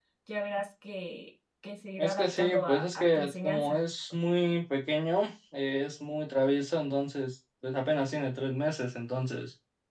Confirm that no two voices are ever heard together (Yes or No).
No